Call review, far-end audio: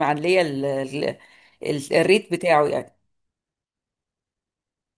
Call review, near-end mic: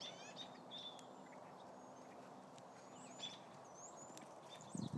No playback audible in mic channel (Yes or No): Yes